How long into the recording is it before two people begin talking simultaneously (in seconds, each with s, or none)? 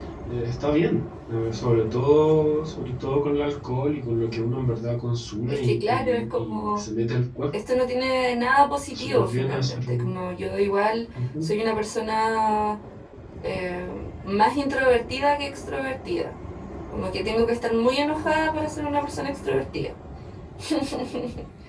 5.5 s